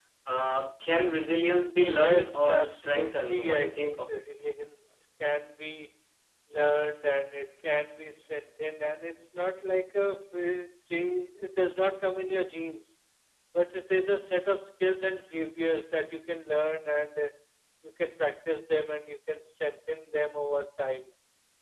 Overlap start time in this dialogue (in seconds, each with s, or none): 1.8 s